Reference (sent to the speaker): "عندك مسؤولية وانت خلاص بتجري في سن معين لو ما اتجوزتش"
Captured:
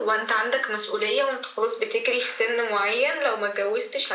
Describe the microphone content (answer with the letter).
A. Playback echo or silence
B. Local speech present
A